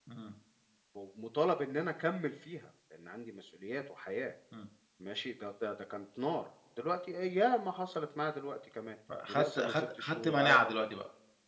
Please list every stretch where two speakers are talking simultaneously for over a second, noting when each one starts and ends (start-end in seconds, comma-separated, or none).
9.3-10.6